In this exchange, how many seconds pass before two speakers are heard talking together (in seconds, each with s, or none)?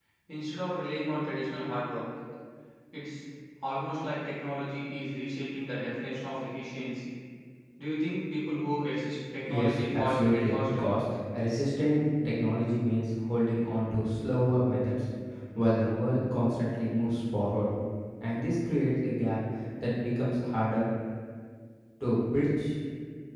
9.4 s